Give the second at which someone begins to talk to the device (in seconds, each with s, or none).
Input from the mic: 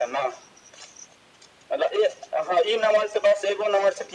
none